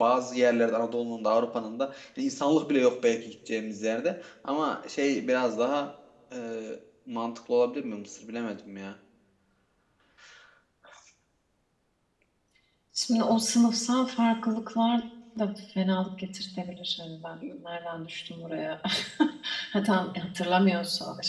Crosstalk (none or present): none